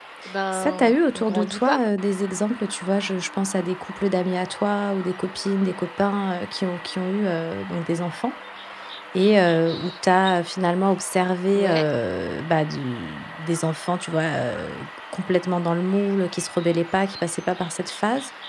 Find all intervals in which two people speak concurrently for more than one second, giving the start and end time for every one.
0.5-1.8

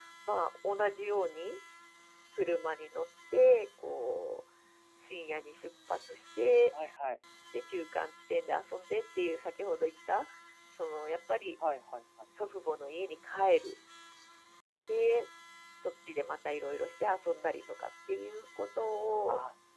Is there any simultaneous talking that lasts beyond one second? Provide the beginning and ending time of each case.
none

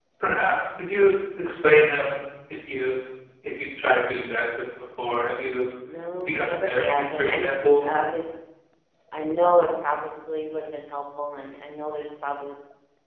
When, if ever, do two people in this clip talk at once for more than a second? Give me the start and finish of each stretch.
6.3-7.8

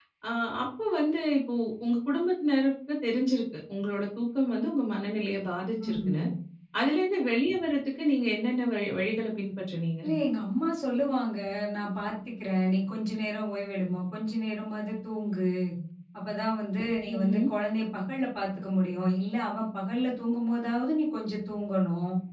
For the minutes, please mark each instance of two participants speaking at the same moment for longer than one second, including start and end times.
none

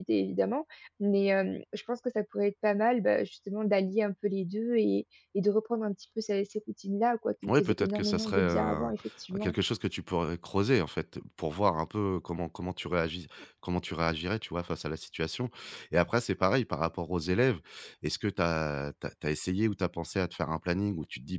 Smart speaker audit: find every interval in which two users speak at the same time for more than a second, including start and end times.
7.5-8.9

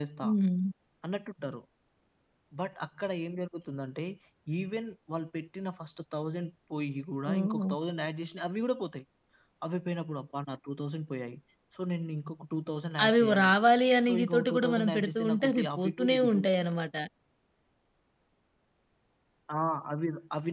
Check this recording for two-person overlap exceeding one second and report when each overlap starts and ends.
14.1-16.5

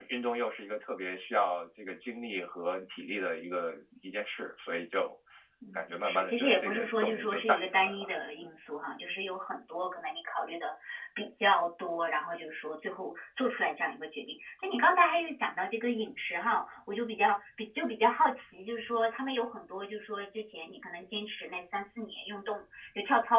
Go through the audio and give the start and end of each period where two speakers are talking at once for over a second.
5.7-8.1

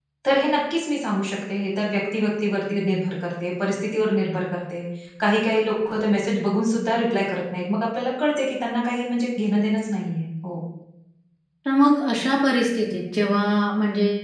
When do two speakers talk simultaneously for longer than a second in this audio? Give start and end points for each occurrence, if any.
none

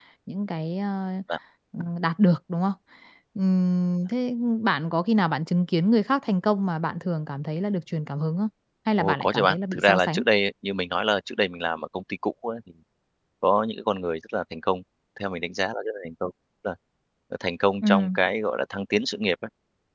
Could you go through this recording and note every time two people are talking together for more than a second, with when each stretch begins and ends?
9.0-10.2

